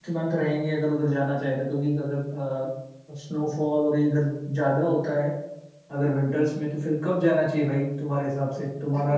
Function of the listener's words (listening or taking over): taking over